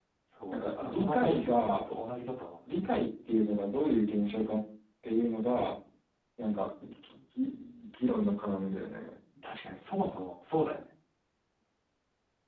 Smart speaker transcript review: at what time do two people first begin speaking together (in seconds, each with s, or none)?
0.5 s